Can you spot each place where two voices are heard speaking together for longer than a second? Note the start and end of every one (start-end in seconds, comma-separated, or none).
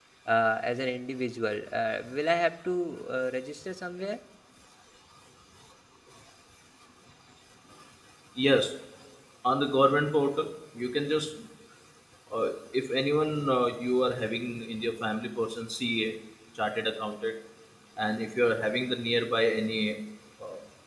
none